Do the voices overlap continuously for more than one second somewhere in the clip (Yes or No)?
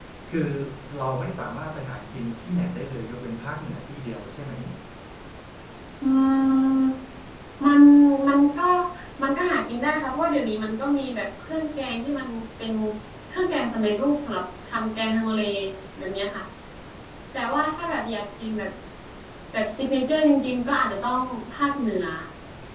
No